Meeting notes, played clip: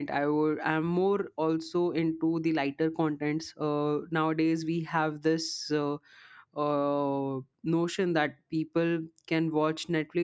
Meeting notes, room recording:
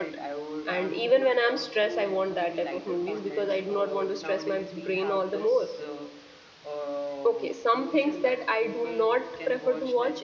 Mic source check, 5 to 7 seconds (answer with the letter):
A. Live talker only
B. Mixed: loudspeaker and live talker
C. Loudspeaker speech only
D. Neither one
B